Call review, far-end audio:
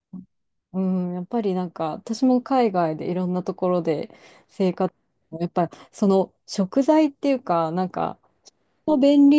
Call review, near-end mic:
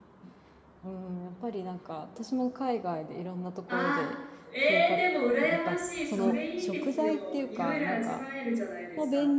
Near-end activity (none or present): present